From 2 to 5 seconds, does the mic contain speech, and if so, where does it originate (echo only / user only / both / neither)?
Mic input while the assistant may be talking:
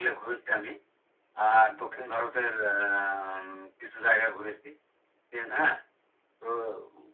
echo only